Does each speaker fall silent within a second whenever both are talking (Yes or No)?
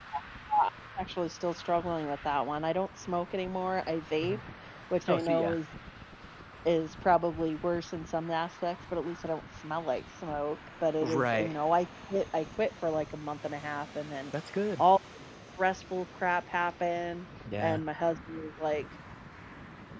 Yes